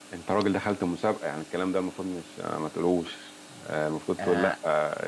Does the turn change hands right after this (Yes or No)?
No